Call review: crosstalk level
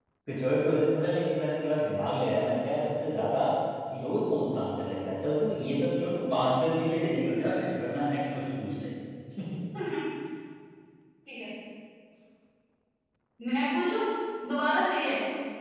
none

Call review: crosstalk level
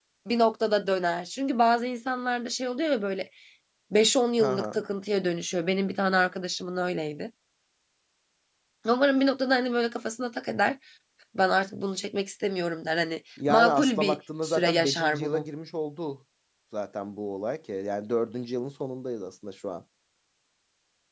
present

